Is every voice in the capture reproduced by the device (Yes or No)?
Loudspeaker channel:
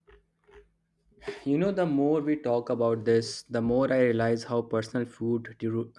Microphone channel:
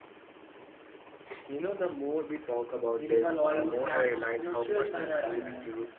No